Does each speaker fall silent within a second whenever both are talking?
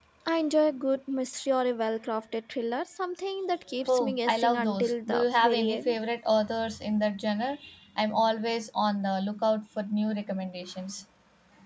No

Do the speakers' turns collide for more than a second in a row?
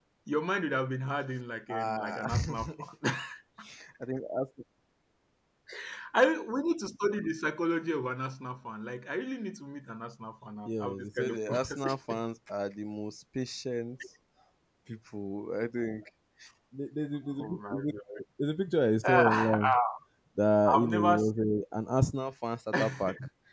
Yes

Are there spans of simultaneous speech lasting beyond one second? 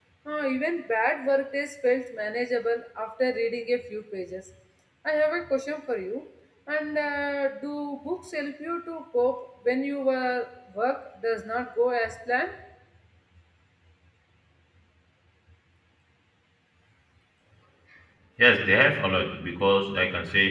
No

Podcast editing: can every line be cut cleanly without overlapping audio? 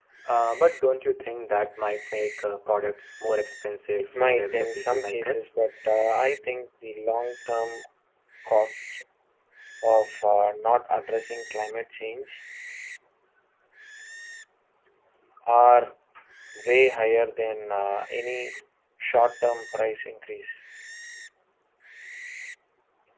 No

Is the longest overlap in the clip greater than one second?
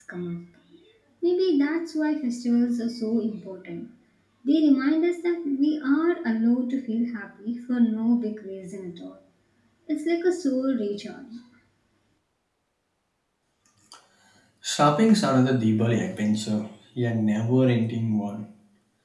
No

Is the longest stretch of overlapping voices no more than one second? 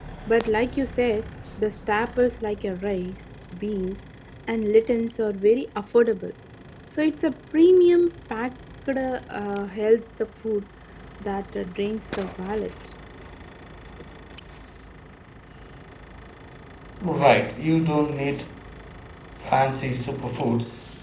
Yes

